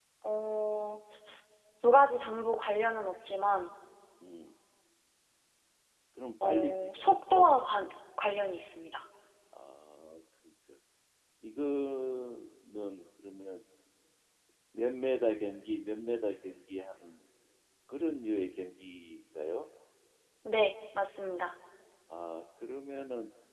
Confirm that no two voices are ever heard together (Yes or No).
No